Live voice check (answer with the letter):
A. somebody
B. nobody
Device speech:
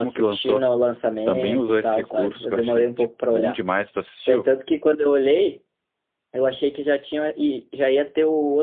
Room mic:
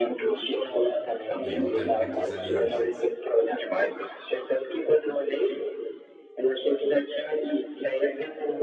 A